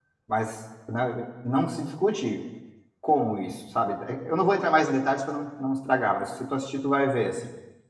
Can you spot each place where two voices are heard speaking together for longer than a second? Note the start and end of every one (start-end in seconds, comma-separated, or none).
none